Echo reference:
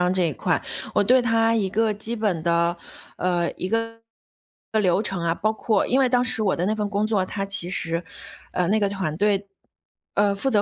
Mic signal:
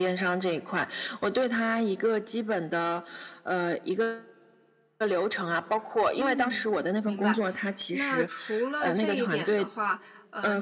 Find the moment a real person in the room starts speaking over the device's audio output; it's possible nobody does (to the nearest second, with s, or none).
6 s